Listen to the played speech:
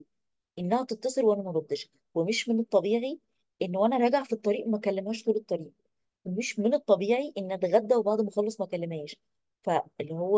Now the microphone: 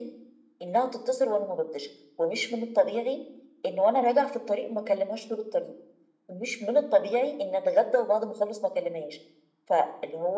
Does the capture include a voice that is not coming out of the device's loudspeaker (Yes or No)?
No